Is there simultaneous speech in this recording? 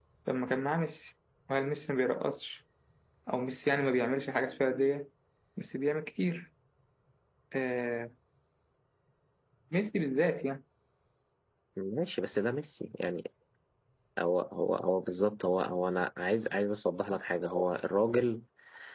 No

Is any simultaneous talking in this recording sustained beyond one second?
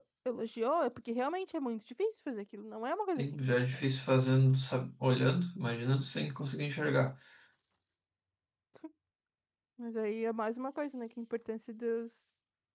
No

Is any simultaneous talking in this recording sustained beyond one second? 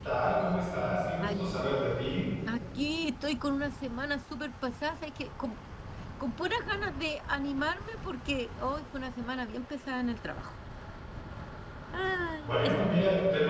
No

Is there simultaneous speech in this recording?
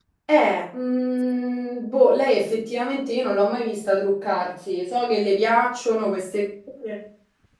No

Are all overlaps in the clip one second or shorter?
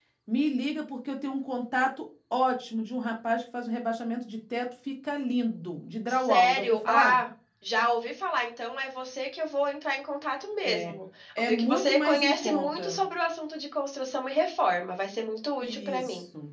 No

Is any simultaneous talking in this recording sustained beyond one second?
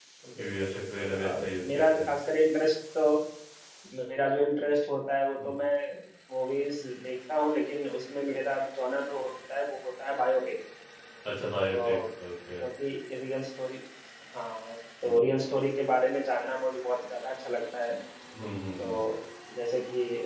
Yes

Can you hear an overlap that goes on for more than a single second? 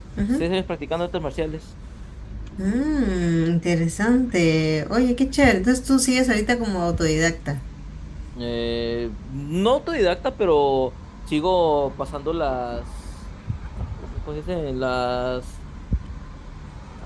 No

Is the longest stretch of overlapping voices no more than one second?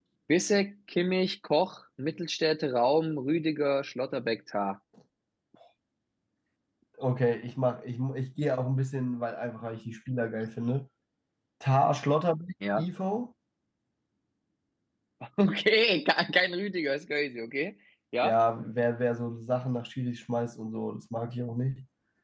Yes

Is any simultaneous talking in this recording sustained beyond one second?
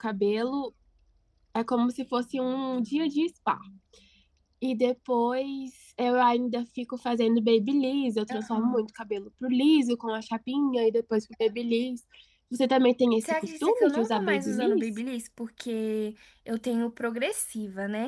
Yes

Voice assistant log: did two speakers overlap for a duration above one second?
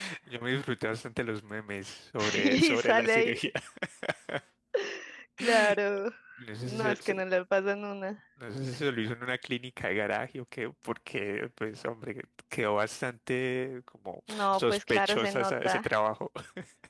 Yes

